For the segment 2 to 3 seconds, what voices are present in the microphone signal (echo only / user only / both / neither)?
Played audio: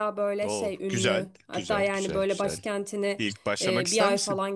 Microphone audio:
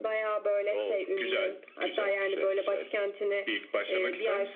echo only